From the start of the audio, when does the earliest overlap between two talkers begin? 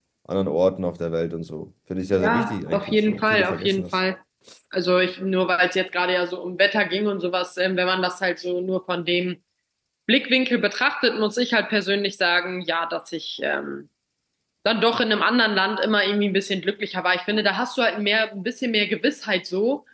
2.1 s

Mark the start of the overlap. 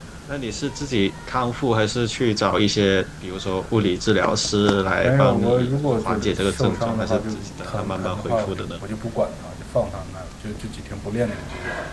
5.0 s

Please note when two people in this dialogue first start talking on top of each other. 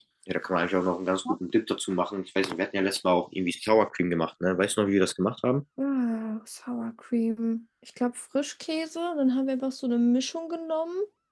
none

